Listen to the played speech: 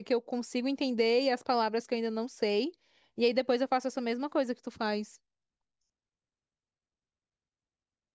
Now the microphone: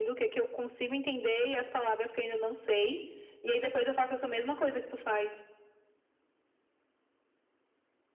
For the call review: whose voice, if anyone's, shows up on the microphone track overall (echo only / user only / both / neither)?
echo only